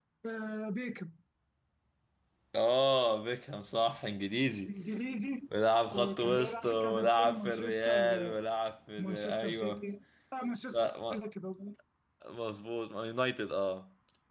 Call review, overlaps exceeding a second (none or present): present